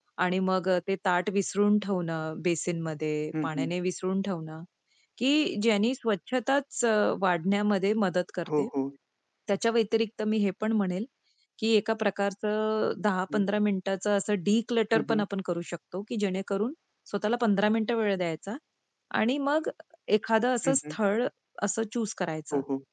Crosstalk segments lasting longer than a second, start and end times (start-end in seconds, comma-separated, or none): none